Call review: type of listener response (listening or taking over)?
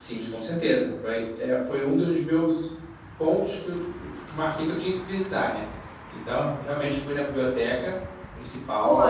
taking over